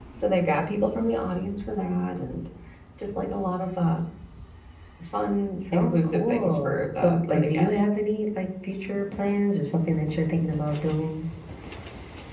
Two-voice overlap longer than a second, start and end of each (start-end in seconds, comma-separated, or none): 5.7-7.8